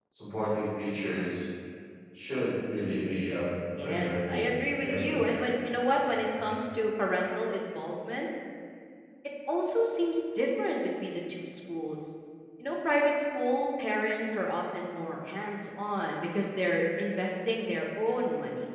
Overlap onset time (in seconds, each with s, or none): 3.8 s